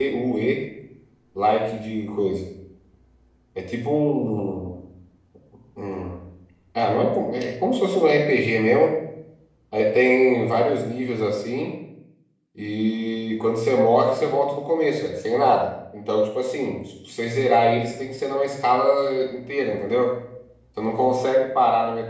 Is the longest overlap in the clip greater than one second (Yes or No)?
No